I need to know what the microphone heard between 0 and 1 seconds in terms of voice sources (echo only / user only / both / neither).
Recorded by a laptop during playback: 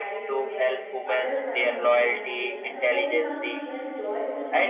both